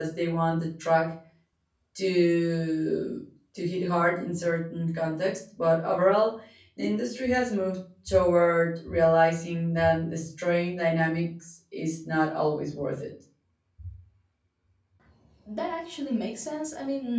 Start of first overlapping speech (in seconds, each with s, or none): none